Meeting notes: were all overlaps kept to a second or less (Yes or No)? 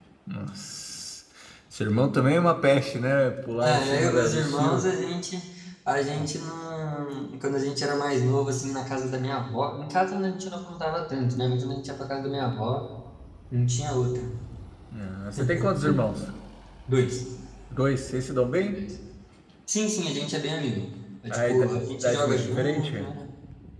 No